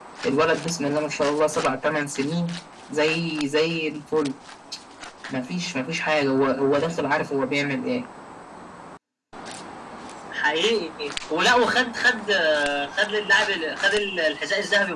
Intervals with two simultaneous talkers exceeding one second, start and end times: none

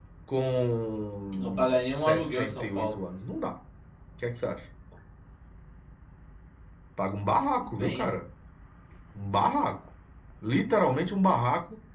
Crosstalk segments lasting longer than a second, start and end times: 1.3-2.9

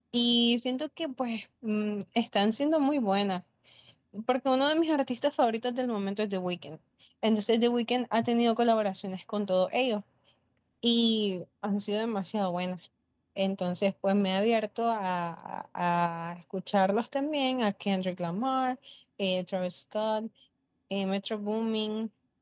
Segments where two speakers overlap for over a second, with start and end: none

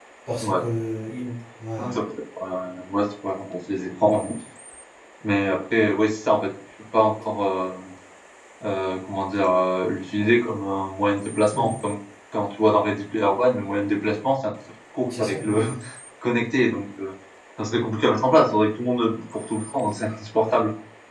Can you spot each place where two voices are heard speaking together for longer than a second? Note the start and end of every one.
none

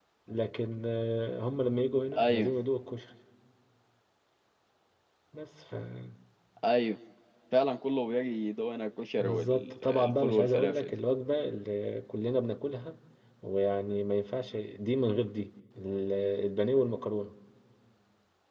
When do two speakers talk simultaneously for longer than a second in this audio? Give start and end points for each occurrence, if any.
9.2-10.9

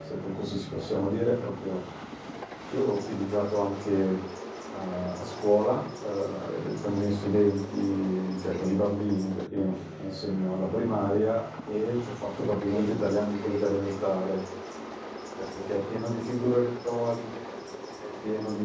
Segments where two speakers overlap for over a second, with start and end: 12.5-13.9

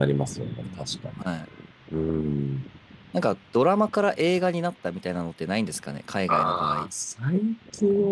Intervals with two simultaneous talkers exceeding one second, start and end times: none

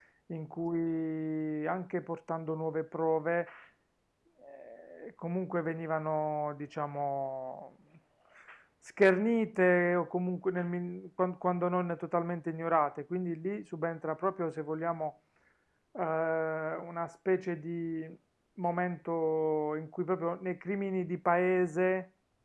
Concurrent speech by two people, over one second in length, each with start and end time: none

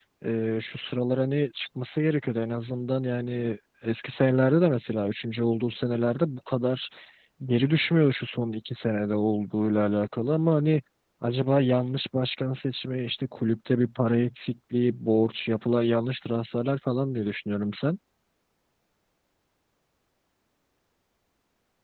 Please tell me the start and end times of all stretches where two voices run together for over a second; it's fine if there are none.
none

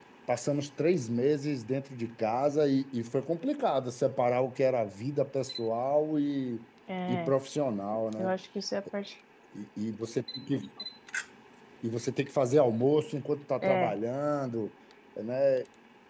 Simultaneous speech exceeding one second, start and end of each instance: none

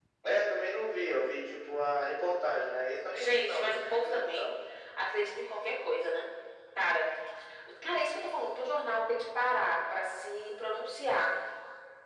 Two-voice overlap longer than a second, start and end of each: 3.1-4.5

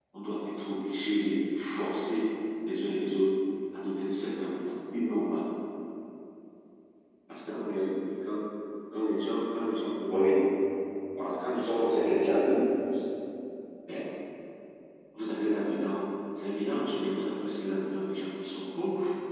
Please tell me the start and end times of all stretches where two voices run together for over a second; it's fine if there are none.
11.4-12.7

